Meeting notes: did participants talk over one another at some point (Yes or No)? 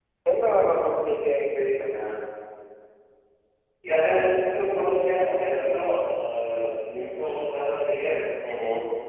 No